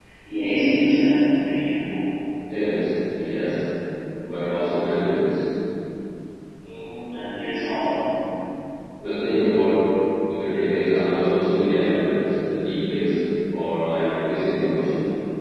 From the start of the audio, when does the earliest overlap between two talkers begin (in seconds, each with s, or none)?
none